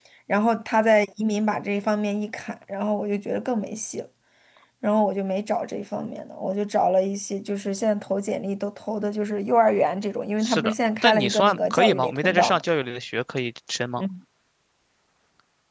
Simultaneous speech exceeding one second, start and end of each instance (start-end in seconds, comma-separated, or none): 10.4-12.6